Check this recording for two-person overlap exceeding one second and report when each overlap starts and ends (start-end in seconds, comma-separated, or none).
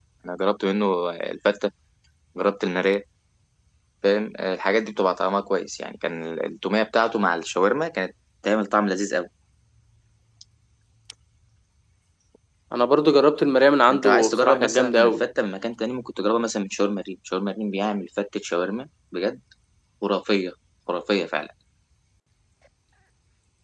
13.9-15.2